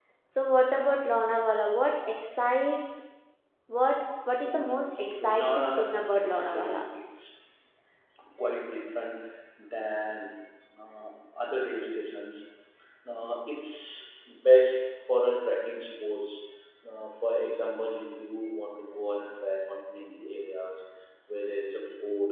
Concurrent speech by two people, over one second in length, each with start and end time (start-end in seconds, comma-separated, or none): 5.2-6.8